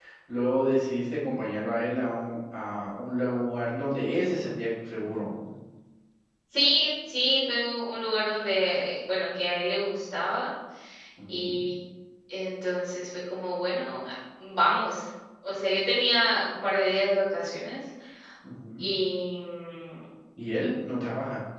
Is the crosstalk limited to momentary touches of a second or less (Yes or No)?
Yes